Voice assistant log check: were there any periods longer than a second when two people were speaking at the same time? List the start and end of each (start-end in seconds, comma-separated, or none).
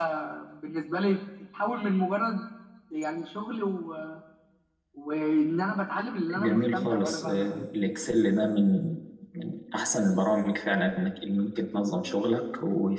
6.3-7.7